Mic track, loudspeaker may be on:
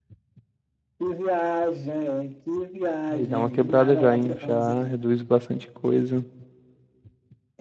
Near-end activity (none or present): present